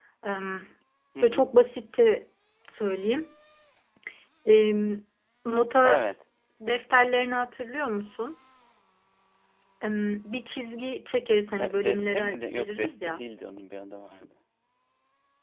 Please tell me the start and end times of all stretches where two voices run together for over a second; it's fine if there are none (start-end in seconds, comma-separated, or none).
11.8-13.2